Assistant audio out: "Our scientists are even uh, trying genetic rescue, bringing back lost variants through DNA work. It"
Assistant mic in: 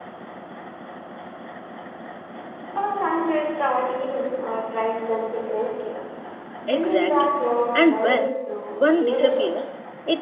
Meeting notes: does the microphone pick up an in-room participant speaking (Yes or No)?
Yes